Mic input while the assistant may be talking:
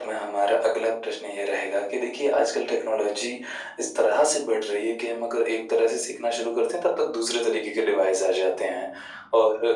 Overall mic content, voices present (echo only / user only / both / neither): echo only